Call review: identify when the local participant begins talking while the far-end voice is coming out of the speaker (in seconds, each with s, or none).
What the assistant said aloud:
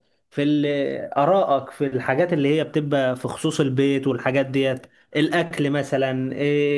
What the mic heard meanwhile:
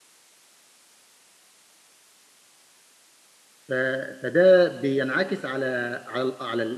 3.7 s